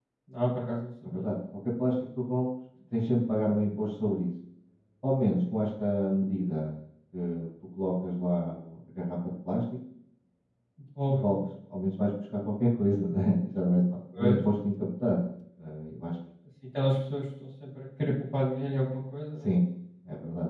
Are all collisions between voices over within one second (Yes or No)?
Yes